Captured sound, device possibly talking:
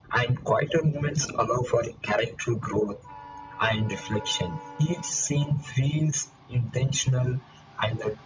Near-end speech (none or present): none